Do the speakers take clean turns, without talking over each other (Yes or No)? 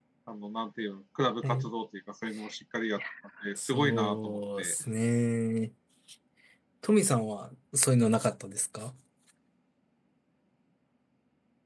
No